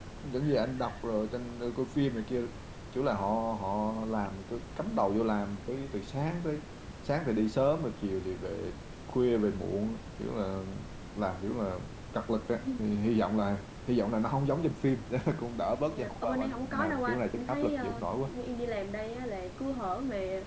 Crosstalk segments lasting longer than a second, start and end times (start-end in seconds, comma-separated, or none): 15.9-18.1